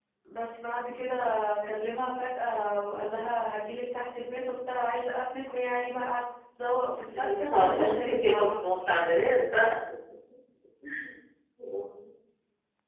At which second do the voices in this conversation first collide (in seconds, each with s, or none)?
7.1 s